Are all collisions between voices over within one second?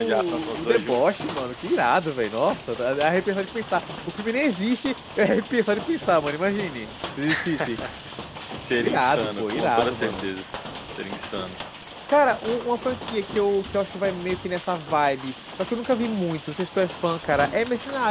No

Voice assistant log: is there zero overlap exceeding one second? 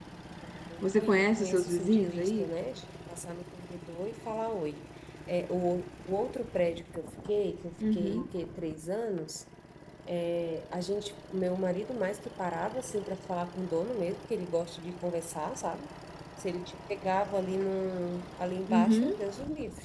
No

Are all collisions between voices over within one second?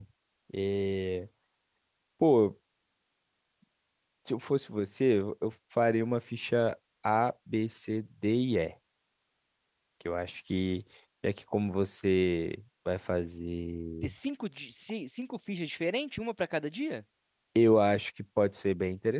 Yes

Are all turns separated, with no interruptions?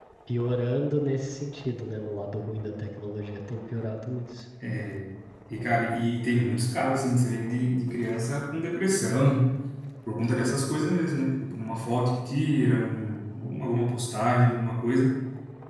Yes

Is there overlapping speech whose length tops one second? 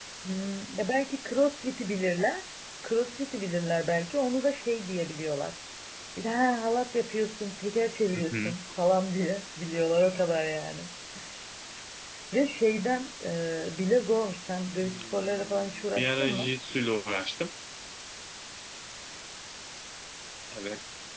Yes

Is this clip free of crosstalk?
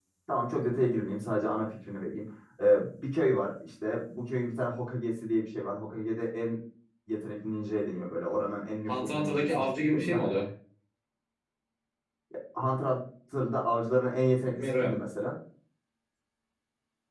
No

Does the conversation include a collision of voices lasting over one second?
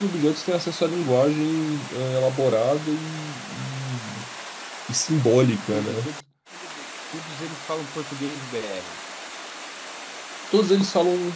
No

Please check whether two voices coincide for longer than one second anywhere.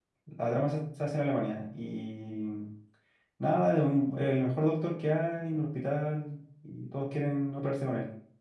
No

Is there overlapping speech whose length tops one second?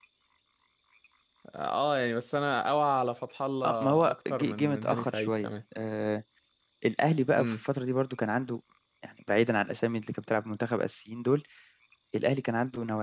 Yes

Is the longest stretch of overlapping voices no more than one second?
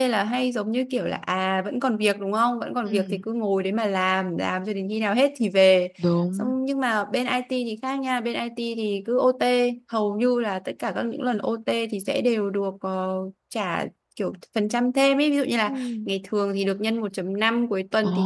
Yes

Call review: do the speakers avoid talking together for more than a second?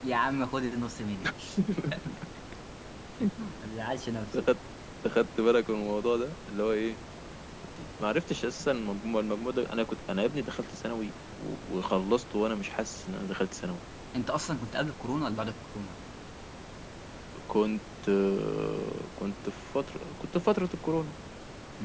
Yes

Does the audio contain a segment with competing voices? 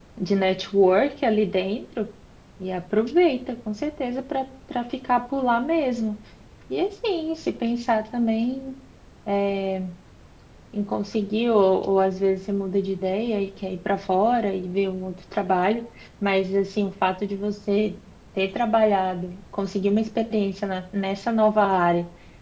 No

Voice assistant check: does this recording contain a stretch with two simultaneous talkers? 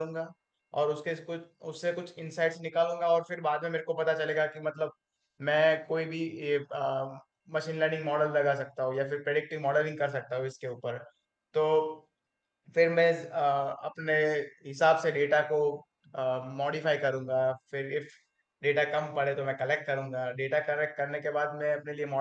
No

